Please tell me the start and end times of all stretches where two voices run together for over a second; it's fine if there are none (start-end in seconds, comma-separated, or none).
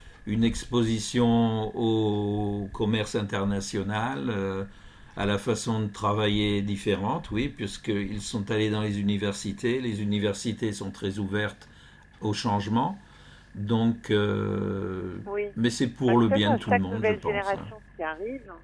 16.2-17.7